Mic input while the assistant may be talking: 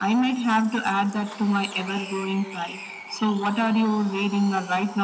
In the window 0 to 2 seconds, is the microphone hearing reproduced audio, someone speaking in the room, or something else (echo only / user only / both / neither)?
echo only